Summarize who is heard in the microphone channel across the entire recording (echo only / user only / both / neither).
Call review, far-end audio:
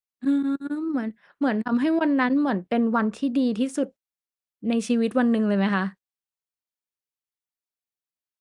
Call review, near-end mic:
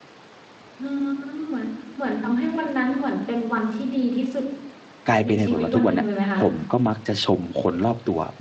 both